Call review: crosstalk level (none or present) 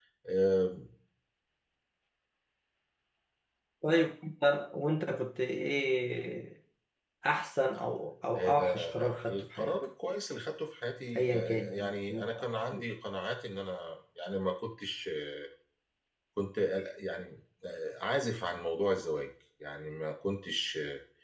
present